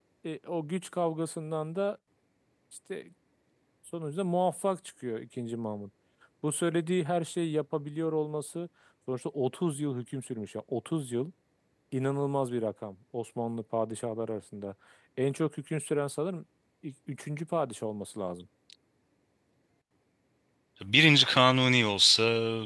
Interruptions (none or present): none